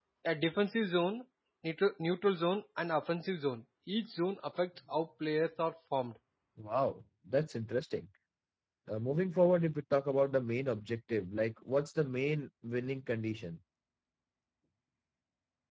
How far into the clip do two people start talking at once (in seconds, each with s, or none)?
none